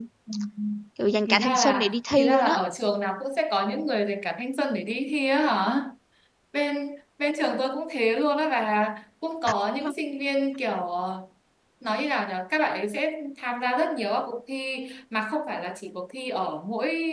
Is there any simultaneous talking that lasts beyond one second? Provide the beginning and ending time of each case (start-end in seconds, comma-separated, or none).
1.3-2.6